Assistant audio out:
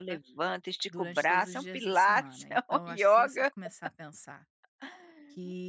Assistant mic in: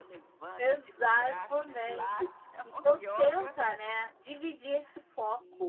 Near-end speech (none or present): present